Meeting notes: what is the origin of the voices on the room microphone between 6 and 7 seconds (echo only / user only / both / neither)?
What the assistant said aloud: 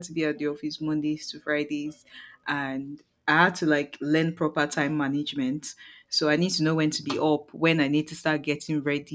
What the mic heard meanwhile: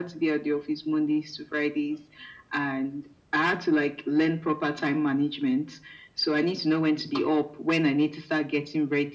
echo only